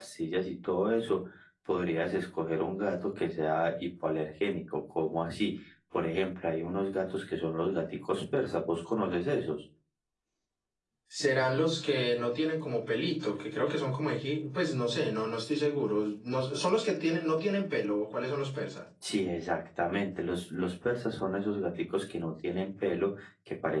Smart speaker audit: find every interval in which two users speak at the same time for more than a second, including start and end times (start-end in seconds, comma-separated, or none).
none